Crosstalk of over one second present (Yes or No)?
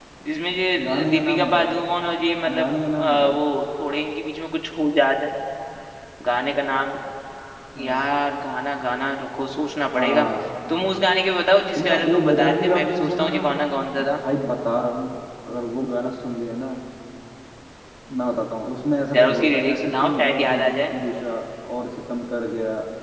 Yes